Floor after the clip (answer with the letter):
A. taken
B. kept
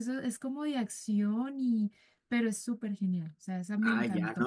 A